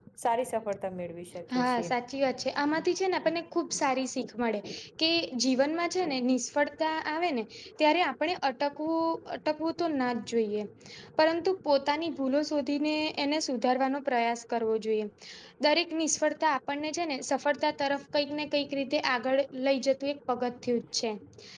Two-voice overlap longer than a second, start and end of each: none

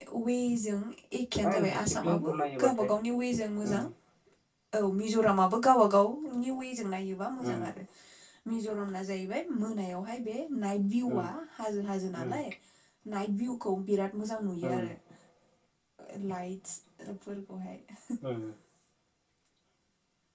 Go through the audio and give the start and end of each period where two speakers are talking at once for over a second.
1.4-2.9

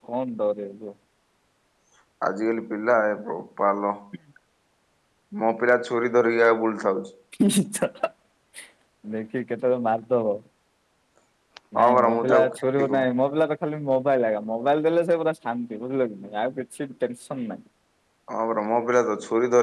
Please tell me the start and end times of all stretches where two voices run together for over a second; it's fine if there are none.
11.8-13.0

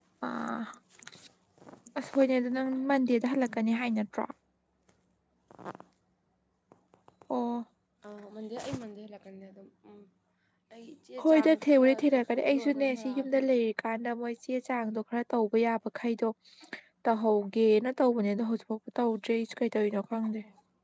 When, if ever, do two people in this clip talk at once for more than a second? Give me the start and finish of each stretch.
11.2-13.5

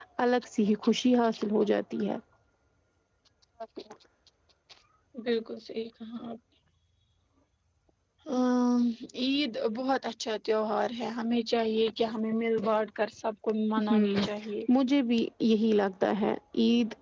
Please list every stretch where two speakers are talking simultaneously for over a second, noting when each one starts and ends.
none

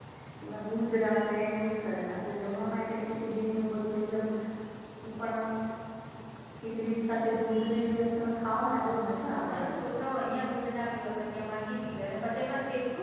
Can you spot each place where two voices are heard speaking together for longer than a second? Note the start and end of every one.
none

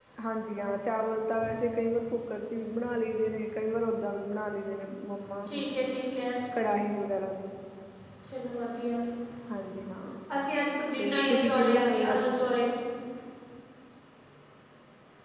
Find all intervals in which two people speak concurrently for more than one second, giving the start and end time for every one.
11.0-12.4

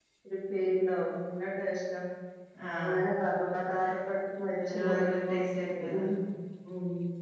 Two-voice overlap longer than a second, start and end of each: 4.7-6.0

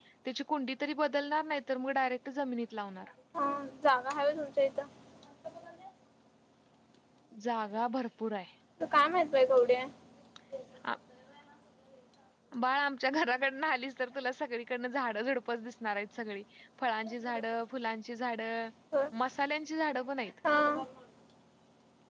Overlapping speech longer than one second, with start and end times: none

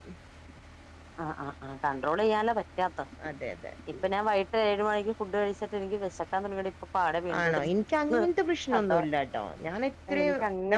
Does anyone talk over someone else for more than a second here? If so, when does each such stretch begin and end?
none

